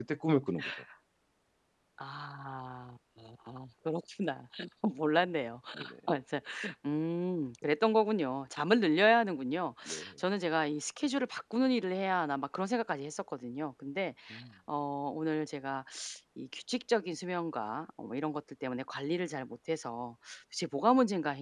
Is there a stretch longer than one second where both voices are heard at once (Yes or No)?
No